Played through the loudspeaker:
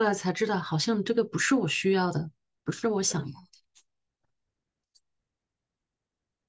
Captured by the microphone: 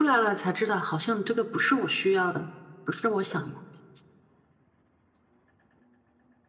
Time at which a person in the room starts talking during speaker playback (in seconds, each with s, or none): none